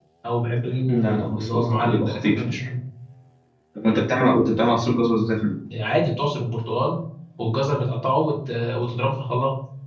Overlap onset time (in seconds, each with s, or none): 0.9 s